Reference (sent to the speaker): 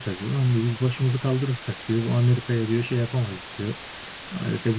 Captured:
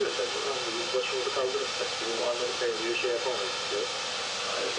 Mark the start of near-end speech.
none

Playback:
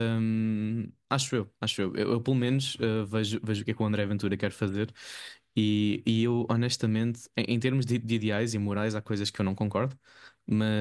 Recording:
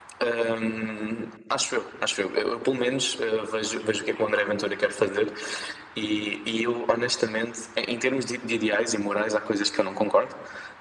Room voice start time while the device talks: none

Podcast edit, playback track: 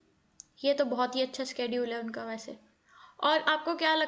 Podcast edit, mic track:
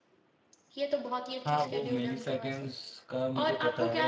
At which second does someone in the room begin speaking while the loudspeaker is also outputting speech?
1.4 s

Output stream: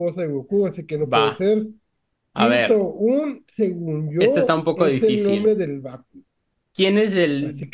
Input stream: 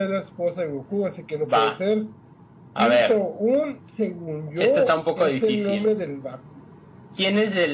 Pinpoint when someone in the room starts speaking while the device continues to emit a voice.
none

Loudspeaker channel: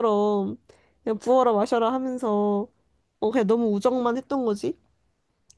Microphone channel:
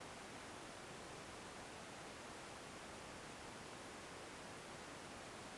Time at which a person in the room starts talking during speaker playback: none

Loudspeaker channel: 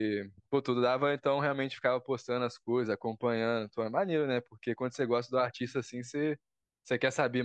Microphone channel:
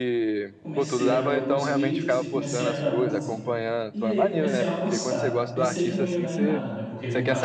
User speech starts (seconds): 0.6 s

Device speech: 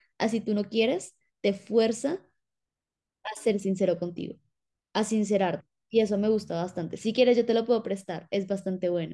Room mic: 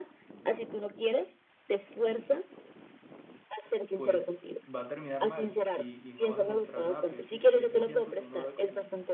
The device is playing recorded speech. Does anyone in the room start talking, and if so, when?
3.9 s

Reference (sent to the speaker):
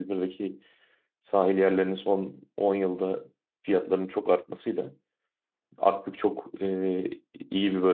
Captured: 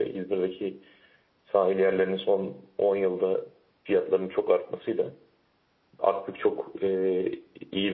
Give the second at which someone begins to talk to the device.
none

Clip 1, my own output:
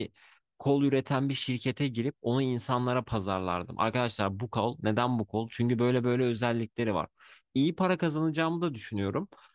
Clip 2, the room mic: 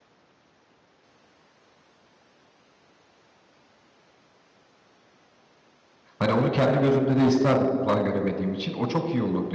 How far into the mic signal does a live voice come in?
6.2 s

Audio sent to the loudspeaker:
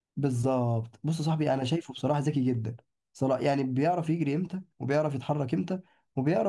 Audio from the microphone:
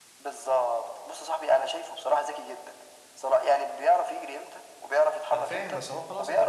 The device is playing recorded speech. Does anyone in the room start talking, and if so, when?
5.3 s

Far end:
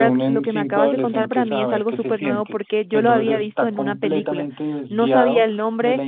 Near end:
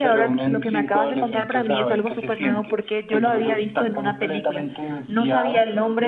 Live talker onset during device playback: none

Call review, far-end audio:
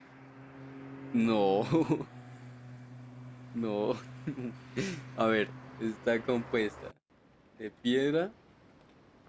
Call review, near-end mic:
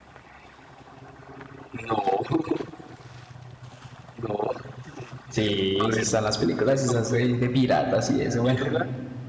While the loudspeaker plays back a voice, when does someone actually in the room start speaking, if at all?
5.3 s

